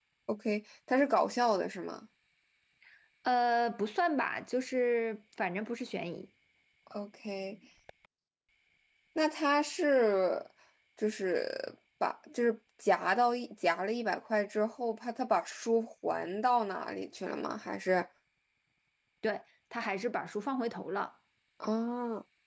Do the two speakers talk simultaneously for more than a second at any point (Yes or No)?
No